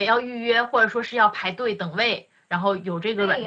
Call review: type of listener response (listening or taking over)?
taking over